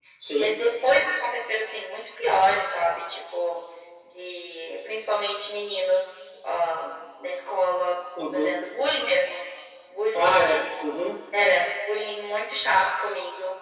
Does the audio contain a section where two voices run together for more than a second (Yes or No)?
No